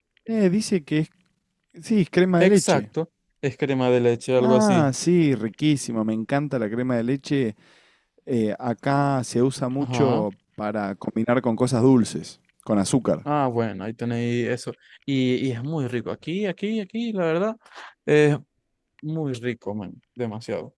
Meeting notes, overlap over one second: none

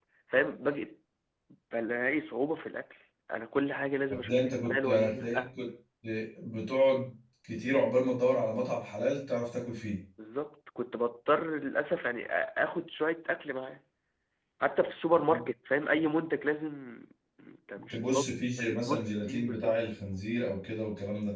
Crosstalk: present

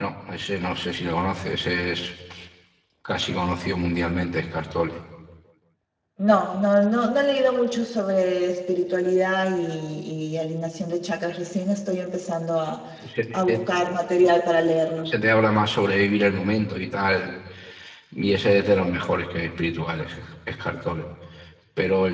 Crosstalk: none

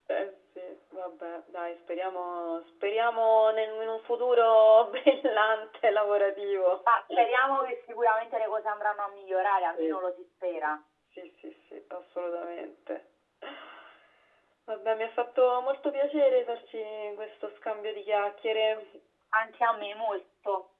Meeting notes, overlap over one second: none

